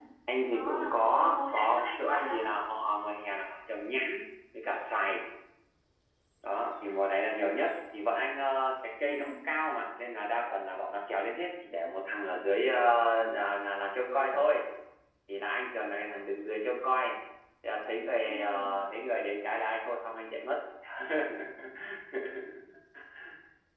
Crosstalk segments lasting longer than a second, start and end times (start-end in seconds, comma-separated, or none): 1.1-2.4